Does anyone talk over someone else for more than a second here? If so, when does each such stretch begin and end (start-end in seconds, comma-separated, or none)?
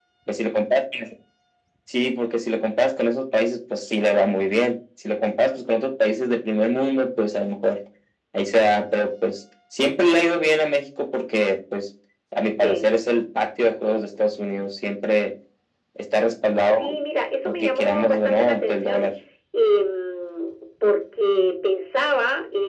17.4-19.1